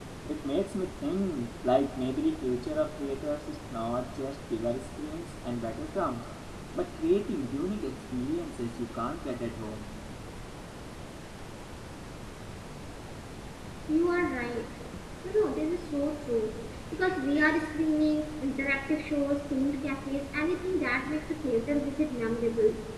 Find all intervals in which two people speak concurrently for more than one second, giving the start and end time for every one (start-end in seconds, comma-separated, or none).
none